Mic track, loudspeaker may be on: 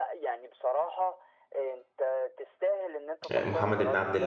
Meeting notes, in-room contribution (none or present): present